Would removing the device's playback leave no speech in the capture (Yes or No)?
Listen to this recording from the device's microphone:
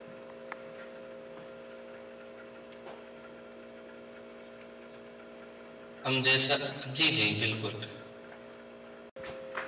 No